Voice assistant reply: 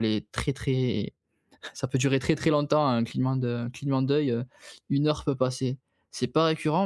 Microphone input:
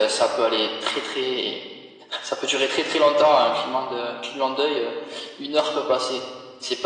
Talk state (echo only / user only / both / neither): echo only